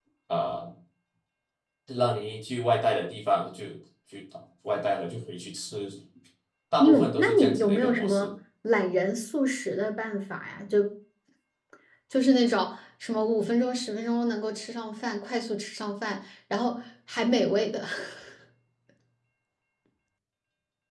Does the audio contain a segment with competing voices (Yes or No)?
Yes